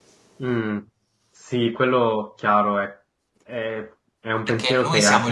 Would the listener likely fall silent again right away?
No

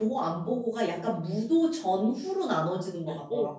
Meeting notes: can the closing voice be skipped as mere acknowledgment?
No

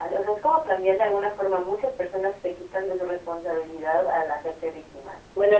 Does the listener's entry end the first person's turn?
Yes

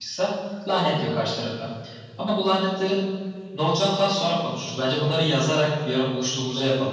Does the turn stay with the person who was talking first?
No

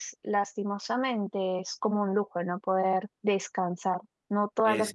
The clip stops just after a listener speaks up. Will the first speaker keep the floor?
Yes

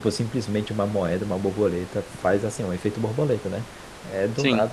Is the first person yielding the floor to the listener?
No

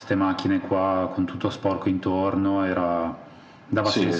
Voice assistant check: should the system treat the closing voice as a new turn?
Yes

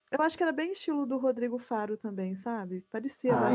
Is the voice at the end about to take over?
Yes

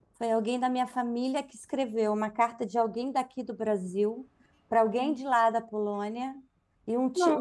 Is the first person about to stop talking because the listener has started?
No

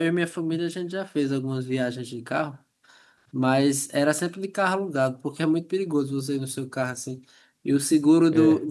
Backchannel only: Yes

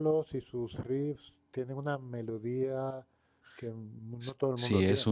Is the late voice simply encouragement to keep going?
No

